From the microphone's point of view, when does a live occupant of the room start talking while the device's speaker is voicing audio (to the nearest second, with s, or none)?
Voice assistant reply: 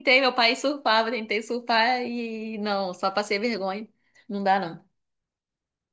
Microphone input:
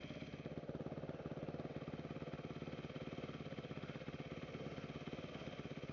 none